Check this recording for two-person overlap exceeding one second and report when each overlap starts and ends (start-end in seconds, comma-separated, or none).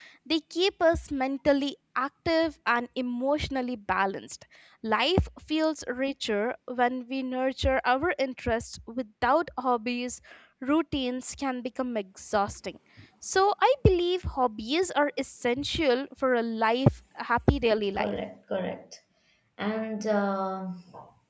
none